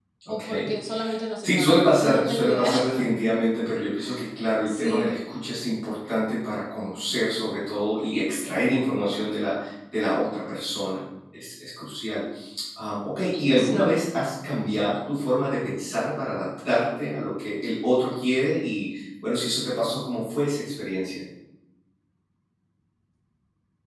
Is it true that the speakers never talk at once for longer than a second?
No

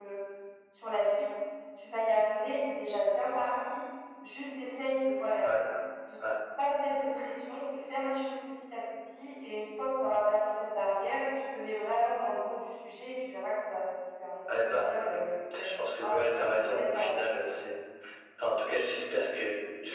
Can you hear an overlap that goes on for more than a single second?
Yes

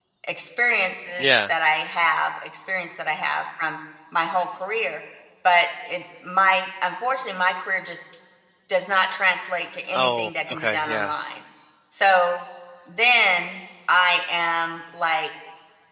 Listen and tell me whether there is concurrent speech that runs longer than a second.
Yes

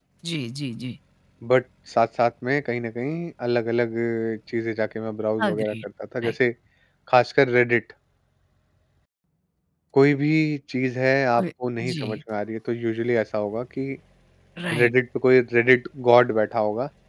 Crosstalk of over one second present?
No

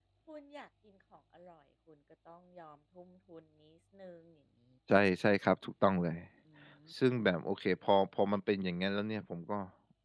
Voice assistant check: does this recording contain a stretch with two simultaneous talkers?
No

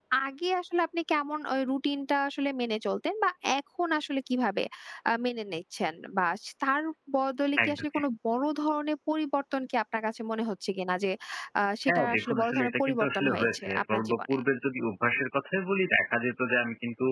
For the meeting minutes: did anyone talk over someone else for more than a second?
Yes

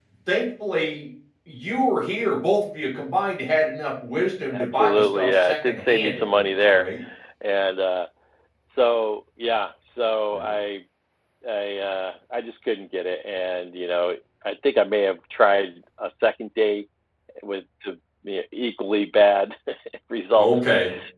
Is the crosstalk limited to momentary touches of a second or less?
No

